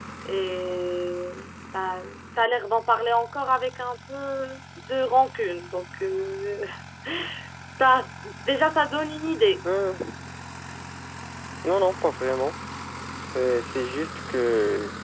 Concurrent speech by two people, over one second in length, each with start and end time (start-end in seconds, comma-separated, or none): none